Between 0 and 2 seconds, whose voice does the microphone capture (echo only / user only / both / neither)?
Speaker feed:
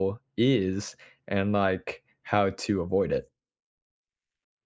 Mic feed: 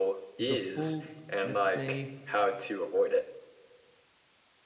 both